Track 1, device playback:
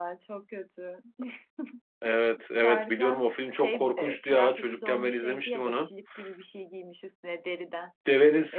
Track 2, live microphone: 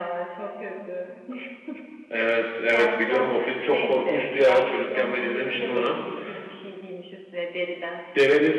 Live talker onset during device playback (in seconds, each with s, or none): none